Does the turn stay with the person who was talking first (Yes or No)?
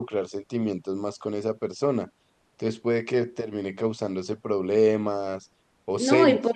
No